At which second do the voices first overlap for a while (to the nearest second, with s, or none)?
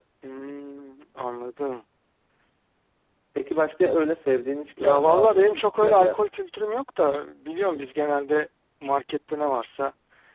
5 s